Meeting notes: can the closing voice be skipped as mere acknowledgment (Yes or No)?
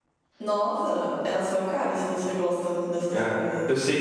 No